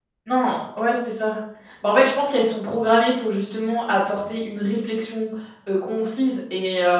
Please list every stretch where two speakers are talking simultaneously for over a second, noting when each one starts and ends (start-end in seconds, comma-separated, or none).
none